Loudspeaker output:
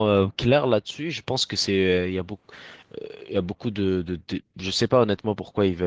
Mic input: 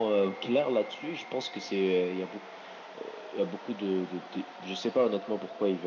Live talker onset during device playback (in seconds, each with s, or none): none